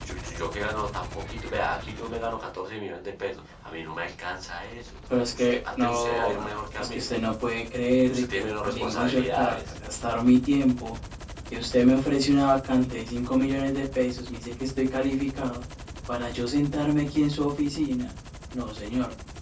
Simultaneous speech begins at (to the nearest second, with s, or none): 5 s